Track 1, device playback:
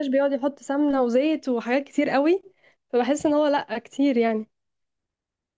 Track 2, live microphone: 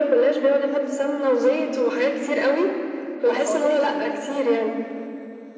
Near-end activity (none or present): present